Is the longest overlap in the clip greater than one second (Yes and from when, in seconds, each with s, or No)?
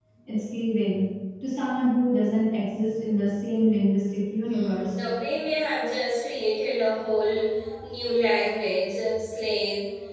No